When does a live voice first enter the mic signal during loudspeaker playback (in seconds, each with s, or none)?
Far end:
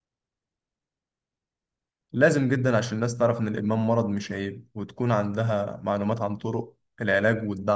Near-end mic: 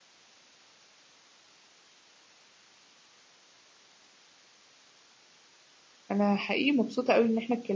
6.1 s